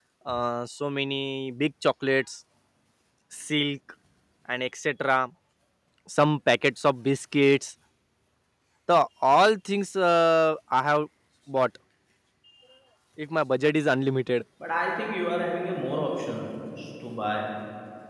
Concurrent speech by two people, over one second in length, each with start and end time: none

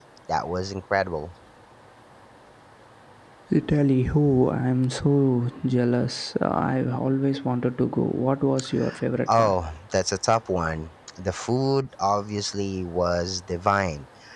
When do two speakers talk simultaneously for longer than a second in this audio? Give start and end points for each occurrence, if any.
none

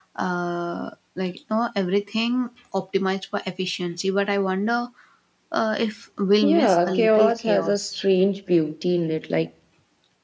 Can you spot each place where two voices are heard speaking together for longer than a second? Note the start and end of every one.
6.4-7.8

